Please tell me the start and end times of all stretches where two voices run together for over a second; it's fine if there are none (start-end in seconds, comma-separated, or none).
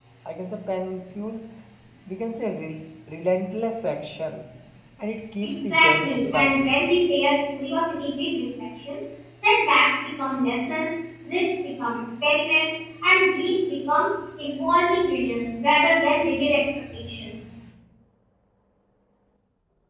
5.4-6.7